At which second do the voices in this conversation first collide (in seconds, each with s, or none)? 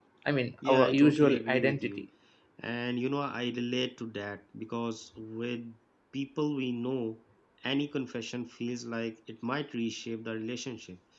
0.6 s